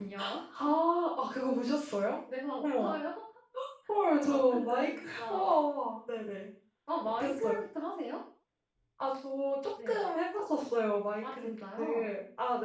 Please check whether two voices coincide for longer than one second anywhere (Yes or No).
Yes